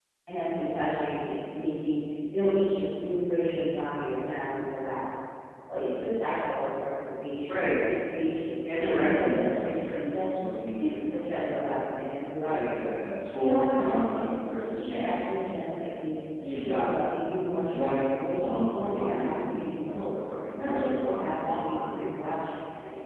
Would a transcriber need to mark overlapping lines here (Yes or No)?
Yes